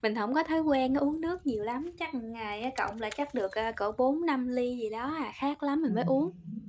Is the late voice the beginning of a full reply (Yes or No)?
Yes